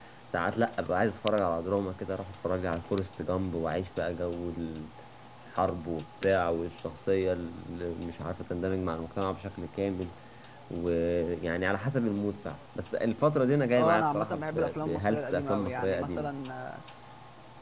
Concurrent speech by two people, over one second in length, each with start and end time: 13.8-16.3

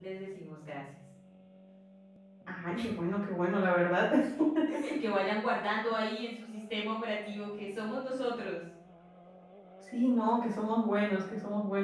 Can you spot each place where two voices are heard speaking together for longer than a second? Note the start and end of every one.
none

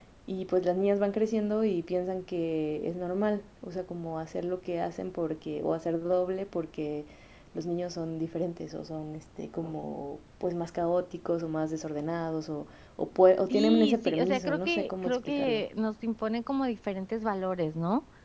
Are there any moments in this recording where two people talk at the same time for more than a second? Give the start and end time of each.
13.5-15.6

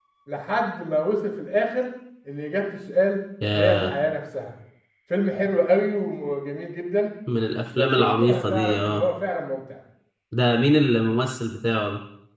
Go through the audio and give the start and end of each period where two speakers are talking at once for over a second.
7.8-9.0

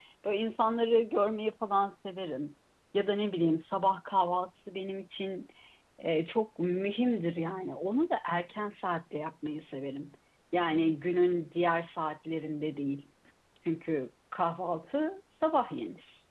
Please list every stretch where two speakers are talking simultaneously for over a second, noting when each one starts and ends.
none

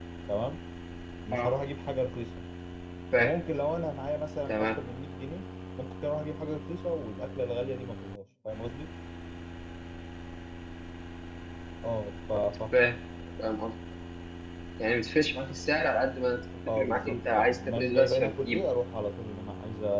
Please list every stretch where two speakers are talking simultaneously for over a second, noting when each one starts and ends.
16.8-18.6

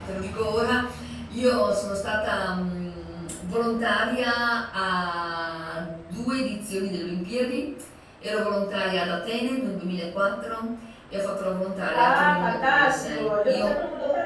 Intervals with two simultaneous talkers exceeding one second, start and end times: 11.9-13.8

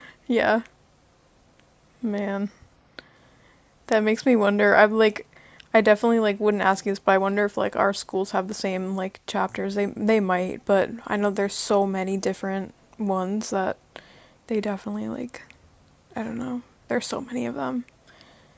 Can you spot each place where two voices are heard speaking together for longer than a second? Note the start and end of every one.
none

